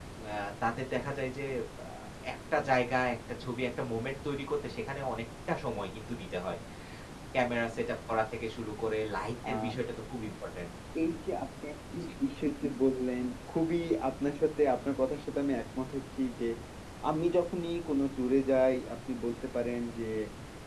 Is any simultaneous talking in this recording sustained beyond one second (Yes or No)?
No